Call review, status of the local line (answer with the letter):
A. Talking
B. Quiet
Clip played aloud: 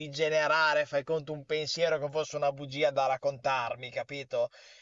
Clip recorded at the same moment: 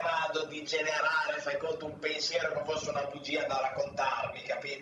B